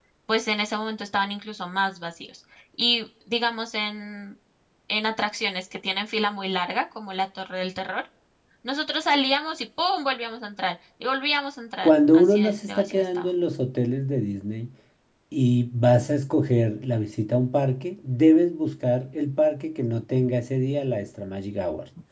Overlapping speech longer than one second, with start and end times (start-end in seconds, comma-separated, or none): 11.8-13.3